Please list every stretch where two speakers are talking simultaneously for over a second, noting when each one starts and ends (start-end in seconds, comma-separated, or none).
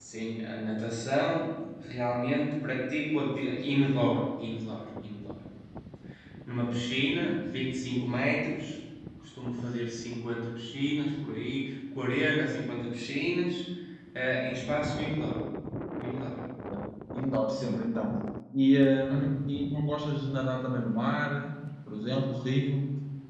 none